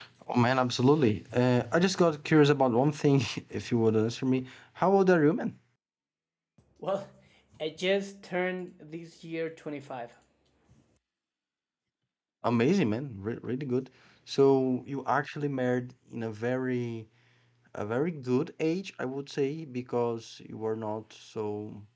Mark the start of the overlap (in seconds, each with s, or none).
none